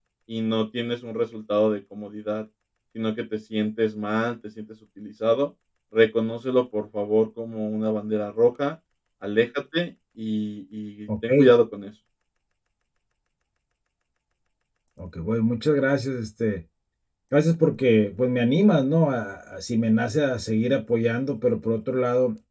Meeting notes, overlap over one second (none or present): none